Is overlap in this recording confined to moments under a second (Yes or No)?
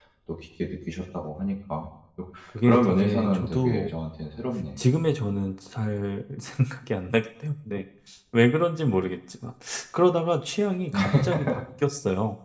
No